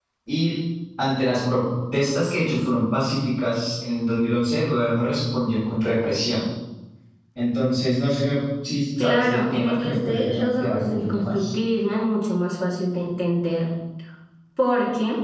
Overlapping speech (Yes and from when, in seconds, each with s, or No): Yes, from 9.0 s